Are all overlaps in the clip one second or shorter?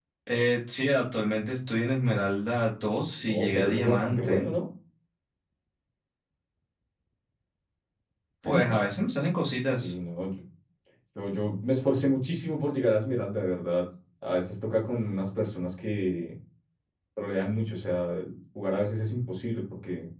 No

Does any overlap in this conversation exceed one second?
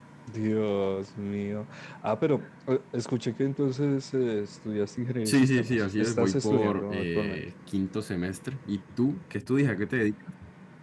Yes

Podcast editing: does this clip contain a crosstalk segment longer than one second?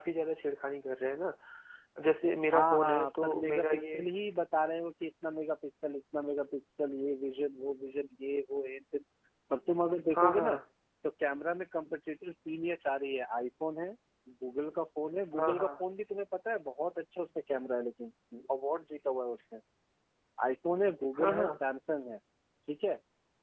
Yes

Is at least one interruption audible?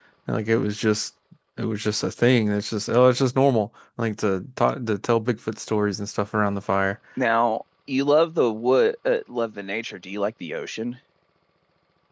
No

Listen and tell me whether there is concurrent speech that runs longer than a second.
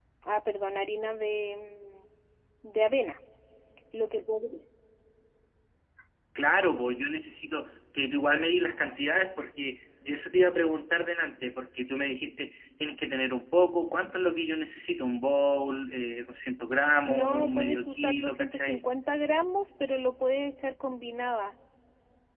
Yes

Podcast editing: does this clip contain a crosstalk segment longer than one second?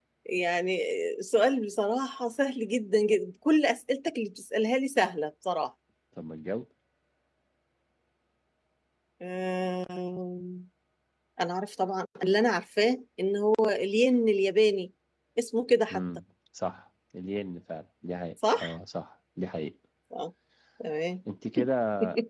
No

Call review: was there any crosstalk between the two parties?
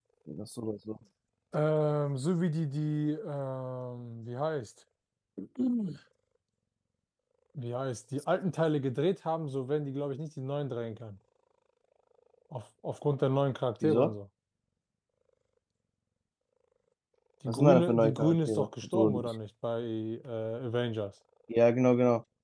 Yes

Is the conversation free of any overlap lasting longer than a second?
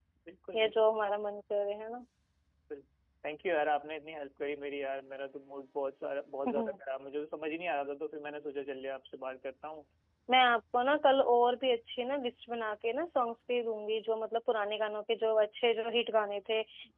Yes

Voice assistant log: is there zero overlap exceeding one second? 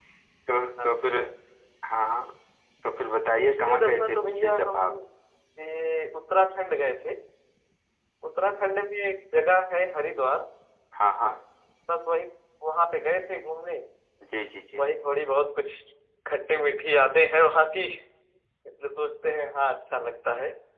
No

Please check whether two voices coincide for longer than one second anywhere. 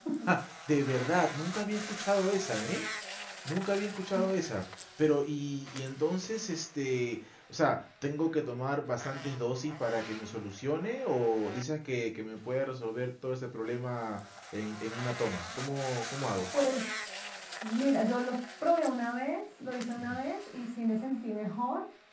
No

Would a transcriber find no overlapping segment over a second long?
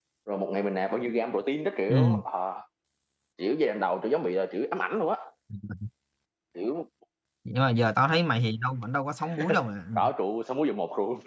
Yes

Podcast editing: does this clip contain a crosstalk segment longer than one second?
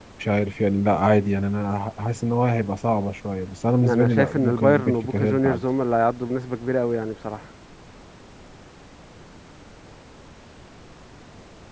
Yes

